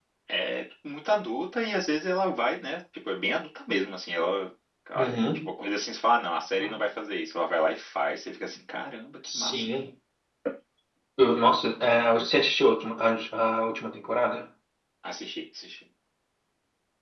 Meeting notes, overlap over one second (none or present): none